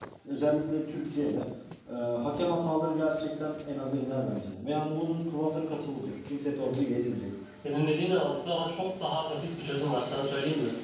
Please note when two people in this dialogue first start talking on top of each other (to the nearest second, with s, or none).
none